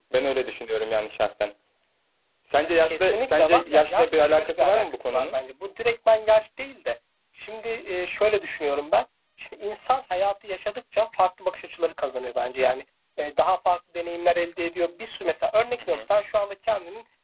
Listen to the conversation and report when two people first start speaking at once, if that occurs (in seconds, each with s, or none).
2.8 s